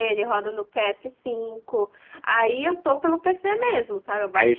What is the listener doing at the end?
taking over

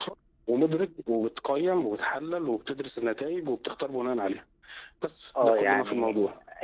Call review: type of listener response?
taking over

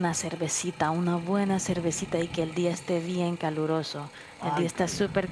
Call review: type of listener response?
listening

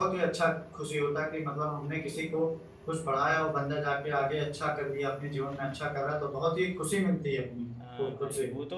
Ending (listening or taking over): taking over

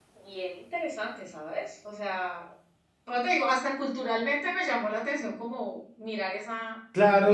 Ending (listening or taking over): taking over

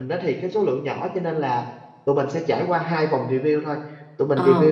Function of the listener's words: listening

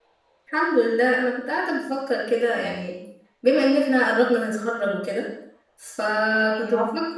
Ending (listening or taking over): listening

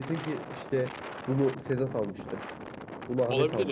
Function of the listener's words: listening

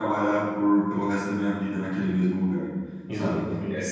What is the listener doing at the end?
listening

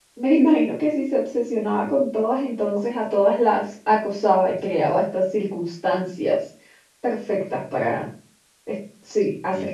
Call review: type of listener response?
taking over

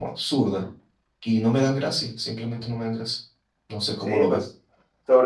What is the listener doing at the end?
taking over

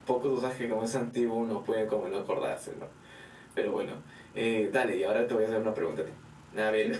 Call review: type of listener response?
listening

